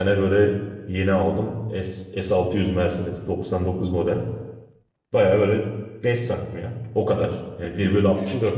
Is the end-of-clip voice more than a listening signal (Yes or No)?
No